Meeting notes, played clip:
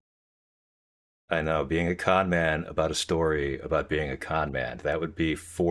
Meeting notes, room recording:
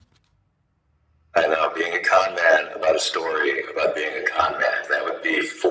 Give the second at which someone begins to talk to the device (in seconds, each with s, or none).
none